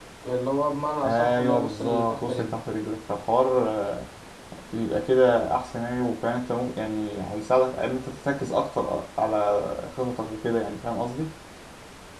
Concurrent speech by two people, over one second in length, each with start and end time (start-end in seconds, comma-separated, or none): 1.0-2.6